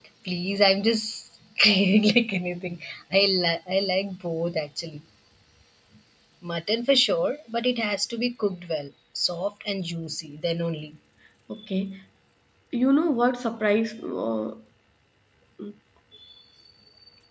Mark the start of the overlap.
none

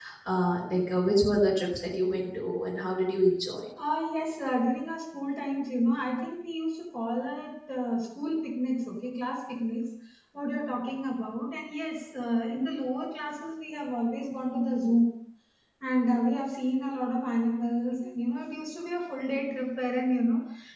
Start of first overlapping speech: none

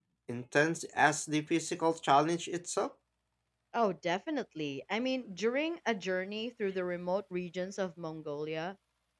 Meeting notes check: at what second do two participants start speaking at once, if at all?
none

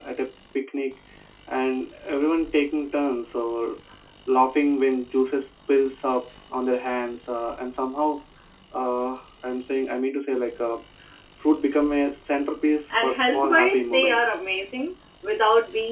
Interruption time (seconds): 13 s

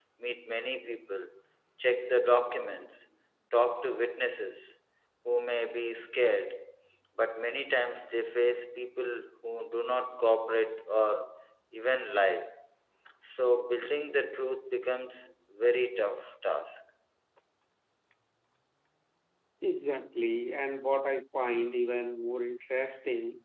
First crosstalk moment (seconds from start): none

